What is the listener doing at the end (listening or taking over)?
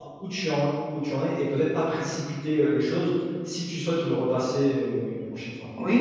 taking over